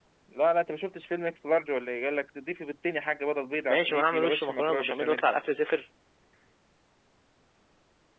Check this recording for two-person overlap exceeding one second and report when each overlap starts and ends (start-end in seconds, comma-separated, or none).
3.7-5.2